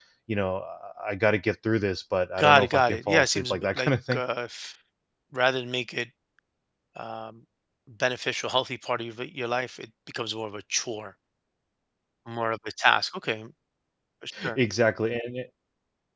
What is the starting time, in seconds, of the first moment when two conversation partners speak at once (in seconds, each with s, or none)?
2.4 s